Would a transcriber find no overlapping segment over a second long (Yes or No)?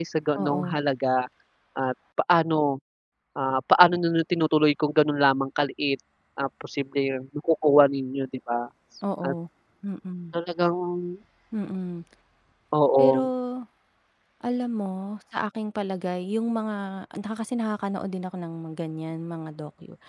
Yes